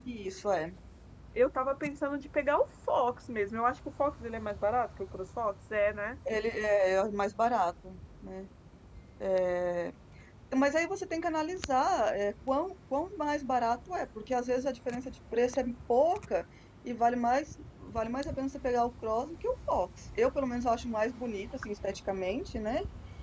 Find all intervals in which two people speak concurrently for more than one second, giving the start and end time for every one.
none

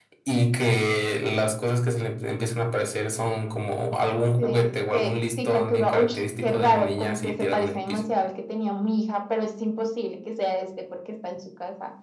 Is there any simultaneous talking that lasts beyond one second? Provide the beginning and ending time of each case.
4.4-8.0

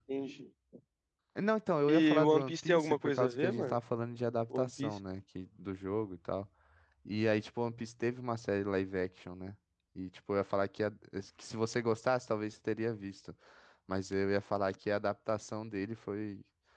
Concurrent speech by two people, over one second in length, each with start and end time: 2.0-3.8

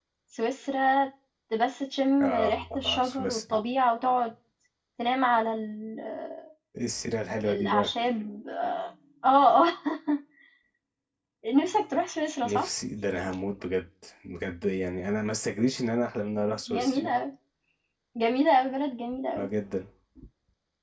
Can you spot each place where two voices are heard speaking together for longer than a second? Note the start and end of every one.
2.2-3.6

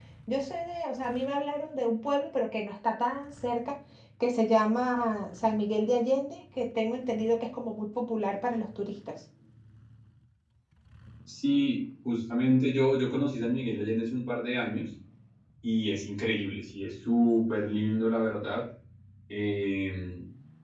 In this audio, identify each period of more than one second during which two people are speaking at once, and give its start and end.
none

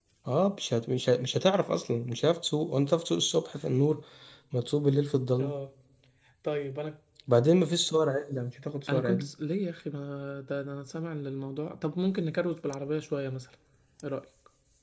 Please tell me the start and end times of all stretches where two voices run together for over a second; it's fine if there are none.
none

